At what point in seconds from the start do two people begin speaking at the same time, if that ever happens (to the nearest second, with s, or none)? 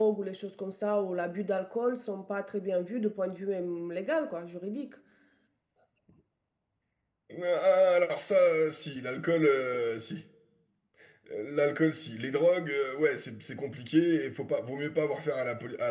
none